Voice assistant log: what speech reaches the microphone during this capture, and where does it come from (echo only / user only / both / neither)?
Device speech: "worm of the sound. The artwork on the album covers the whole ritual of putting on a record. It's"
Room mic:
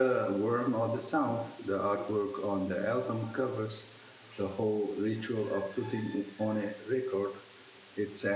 echo only